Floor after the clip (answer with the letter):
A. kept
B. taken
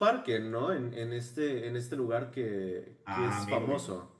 B